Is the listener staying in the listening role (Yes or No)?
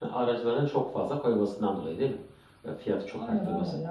No